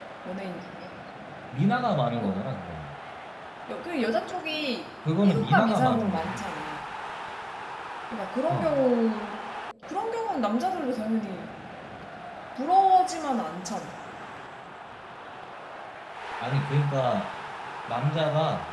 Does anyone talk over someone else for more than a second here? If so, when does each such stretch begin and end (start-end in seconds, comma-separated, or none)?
5.2-6.4